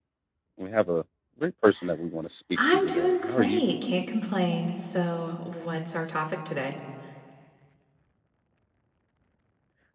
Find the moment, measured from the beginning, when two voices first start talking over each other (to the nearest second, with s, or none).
3 s